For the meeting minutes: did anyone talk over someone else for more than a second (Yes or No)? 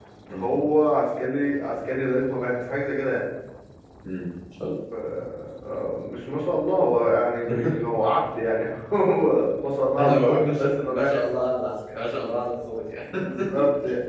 Yes